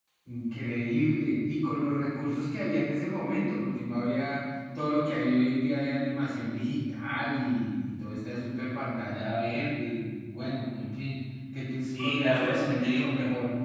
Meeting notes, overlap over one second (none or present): present